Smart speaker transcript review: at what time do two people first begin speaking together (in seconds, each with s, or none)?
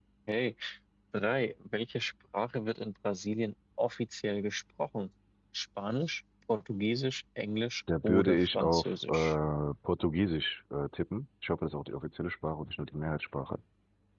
7.9 s